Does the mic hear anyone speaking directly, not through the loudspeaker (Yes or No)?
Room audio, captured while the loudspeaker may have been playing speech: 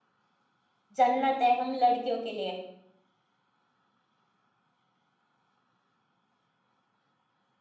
Yes